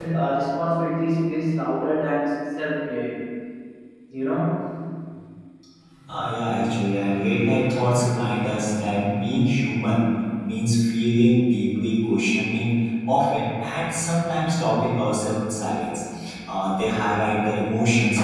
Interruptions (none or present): none